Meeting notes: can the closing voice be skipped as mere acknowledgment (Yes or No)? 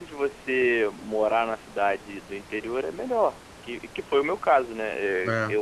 Yes